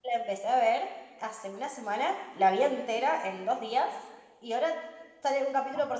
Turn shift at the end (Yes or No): No